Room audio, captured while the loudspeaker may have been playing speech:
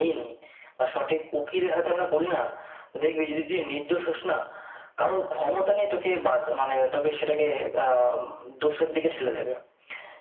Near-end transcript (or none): none